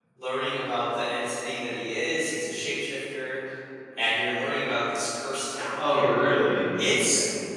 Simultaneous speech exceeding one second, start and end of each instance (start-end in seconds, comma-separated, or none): none